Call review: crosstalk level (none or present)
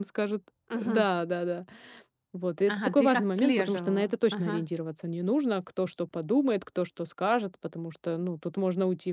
present